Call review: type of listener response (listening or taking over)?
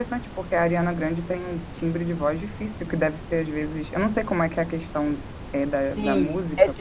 taking over